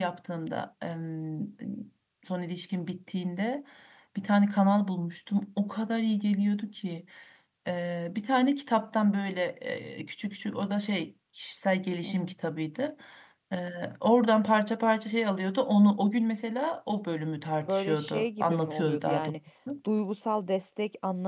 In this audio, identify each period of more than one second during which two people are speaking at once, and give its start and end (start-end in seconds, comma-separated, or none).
17.7-19.4